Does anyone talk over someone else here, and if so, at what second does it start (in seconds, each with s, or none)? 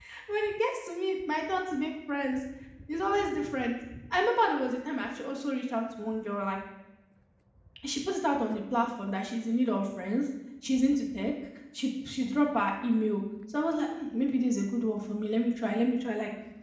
none